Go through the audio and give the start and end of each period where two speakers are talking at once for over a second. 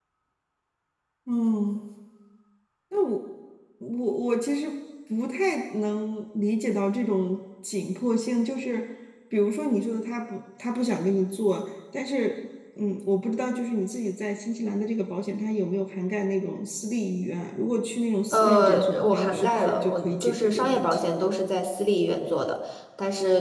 18.3-21.1

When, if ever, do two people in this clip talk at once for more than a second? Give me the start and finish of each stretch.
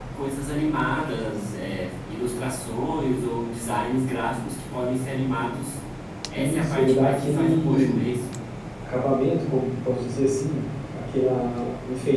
6.3-8.1

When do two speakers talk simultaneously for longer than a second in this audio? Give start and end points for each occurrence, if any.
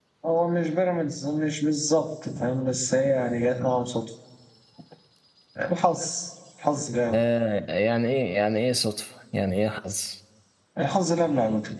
none

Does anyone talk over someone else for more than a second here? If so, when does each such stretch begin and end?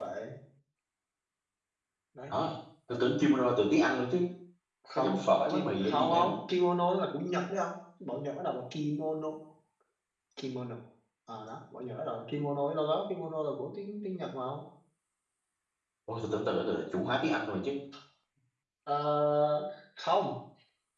5.0-6.3

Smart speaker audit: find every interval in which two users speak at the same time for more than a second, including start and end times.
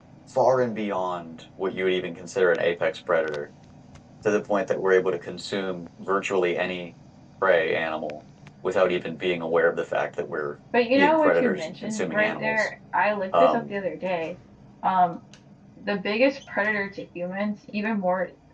10.9-12.7

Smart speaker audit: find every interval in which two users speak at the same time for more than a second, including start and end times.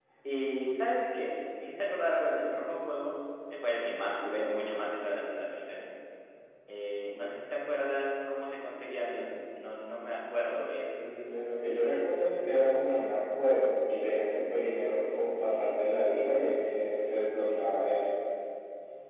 none

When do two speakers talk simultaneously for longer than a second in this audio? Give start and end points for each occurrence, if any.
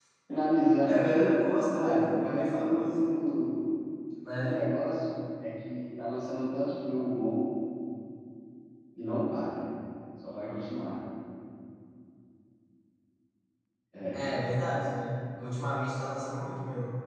0.9-3.0

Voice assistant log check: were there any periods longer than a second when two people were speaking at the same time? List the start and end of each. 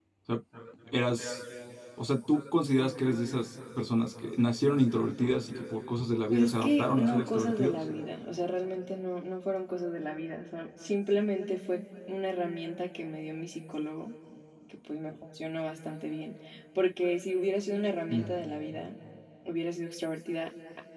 6.3-7.8

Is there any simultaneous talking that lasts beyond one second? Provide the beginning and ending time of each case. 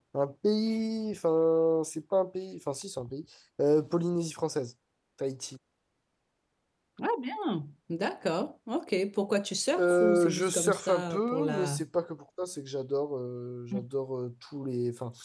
9.8-11.8

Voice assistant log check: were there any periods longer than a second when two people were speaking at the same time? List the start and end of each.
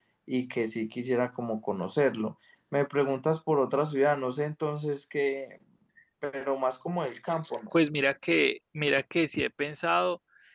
none

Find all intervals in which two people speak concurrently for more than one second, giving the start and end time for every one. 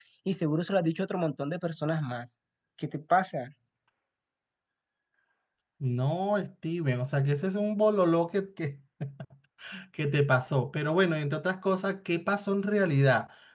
none

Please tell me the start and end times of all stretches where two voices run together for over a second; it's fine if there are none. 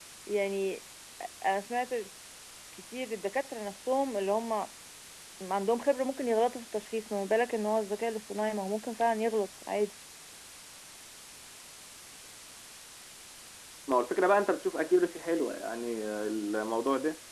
none

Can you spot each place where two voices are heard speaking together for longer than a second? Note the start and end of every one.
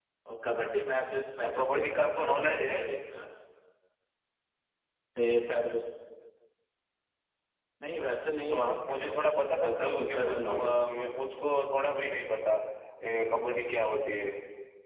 1.4-2.8, 8.5-10.9

